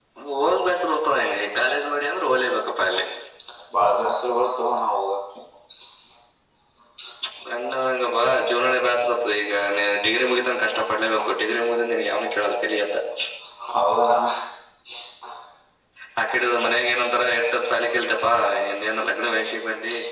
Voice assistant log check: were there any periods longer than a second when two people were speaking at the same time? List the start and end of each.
none

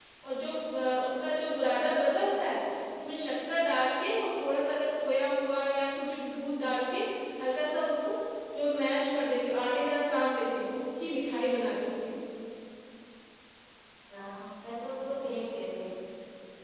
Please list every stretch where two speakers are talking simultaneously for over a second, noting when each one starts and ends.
none

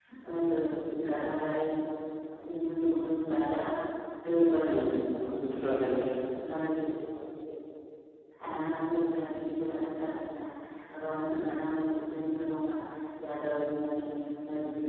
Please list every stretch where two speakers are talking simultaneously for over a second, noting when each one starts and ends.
none

